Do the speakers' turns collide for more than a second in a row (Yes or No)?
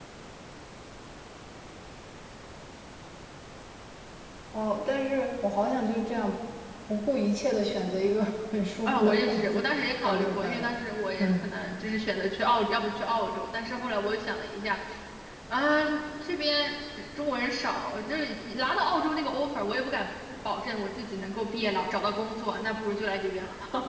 Yes